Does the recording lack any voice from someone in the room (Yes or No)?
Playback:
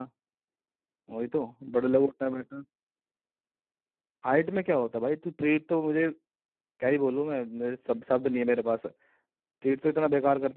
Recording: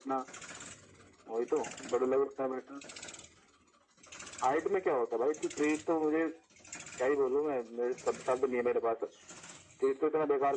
Yes